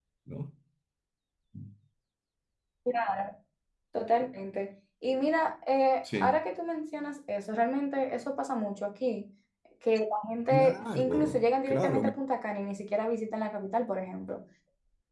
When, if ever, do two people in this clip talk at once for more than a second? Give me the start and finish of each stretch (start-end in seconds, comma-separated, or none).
10.5-12.1